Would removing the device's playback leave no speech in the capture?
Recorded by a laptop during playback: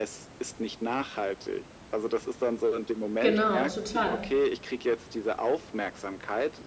No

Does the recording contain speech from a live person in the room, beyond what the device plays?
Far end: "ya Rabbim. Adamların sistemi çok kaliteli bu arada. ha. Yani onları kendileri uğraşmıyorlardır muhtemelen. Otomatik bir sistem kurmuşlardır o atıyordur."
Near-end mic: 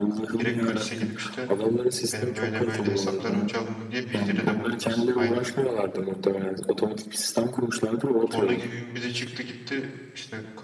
Yes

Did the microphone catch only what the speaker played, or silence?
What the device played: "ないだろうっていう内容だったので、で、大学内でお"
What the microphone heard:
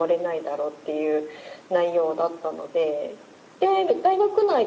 Yes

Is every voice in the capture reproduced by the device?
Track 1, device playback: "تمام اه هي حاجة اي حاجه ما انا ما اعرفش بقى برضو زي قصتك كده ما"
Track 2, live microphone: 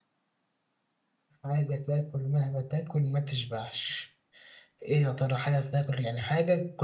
No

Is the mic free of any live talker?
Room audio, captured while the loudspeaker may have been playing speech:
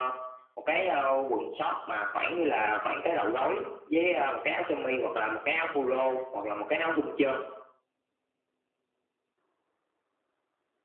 Yes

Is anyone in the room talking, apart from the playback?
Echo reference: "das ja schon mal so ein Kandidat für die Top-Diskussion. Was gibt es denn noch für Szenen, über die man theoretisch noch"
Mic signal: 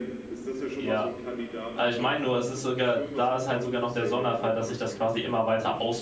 Yes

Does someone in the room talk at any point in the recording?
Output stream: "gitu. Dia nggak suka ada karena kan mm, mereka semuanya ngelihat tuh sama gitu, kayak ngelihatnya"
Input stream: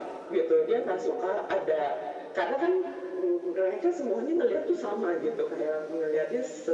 No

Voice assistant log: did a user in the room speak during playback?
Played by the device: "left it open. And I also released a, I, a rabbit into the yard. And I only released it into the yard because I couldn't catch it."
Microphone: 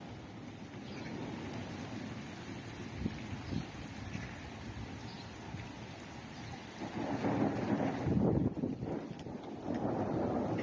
No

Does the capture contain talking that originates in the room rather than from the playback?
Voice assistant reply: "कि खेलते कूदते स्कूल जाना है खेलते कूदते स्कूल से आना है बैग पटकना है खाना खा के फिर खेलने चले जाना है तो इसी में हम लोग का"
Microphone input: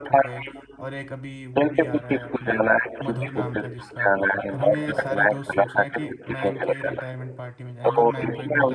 Yes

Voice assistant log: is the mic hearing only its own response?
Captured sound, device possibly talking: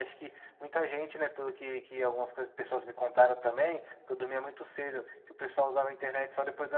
Yes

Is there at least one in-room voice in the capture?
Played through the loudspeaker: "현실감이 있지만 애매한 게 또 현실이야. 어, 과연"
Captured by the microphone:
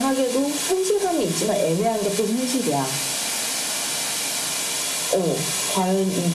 No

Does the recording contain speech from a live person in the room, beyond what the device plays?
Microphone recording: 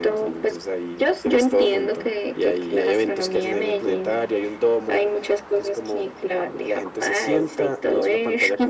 No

